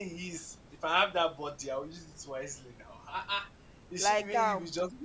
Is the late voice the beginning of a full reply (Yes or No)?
No